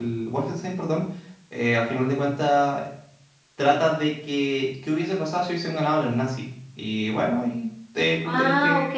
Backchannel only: No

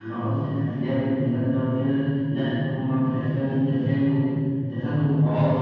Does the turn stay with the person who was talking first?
No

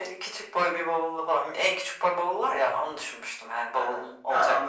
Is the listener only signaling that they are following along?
No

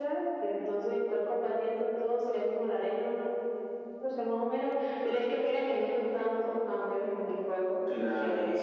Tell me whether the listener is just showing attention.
Yes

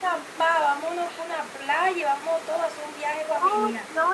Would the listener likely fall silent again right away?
No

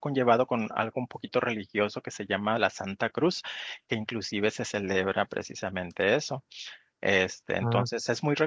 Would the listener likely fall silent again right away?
Yes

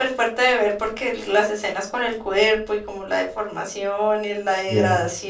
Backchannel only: Yes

